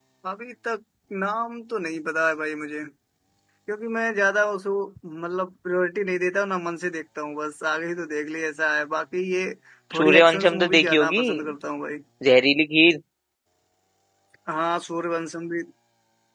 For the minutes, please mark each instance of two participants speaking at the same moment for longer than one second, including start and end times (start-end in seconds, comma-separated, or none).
9.9-11.2